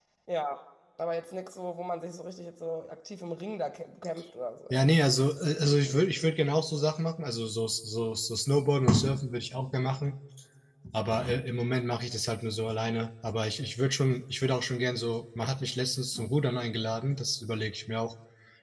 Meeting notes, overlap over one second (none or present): none